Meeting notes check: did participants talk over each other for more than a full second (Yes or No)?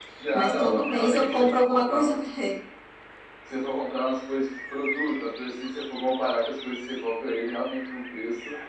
Yes